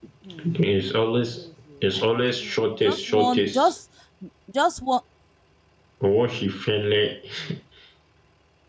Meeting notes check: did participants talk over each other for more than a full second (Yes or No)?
Yes